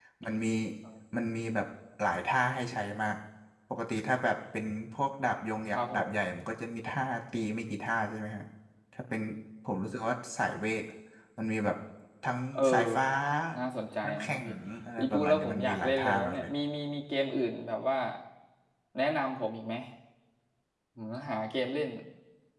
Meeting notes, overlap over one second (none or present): present